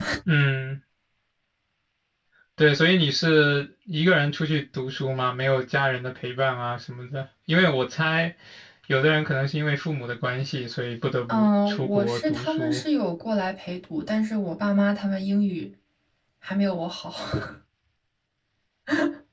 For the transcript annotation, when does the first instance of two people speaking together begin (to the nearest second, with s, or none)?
11 s